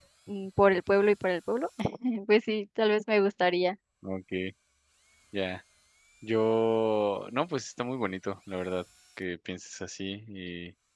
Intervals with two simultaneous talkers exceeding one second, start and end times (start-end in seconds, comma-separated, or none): none